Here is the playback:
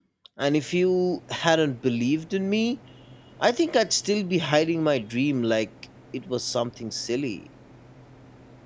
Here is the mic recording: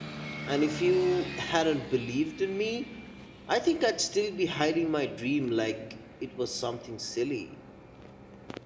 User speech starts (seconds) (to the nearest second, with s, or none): none